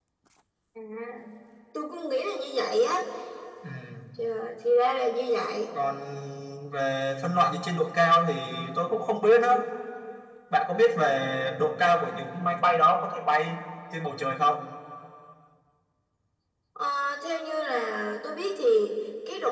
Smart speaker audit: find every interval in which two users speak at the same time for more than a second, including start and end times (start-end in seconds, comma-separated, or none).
none